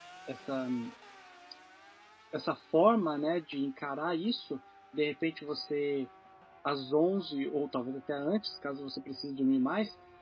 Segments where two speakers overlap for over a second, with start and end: none

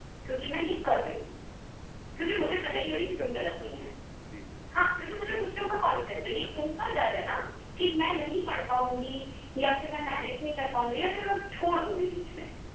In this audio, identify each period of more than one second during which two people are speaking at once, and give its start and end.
2.2-3.7, 5.3-6.8

